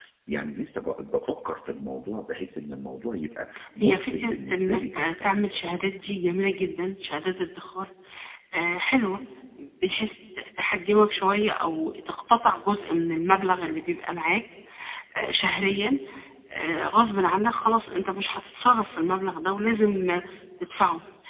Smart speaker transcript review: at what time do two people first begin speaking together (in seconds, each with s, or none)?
3.8 s